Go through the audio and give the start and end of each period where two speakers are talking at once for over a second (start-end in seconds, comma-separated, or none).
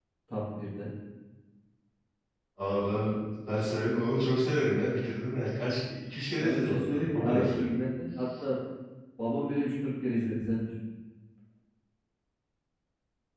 6.4-7.7